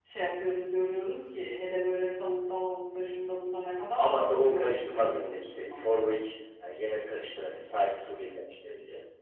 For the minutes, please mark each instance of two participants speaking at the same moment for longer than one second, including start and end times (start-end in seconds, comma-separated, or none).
4.0-5.8